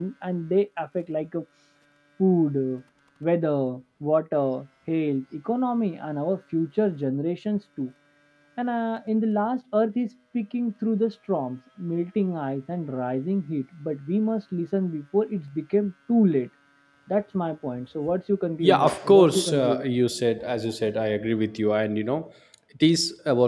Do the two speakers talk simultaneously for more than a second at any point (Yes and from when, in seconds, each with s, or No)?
Yes, from 18.6 s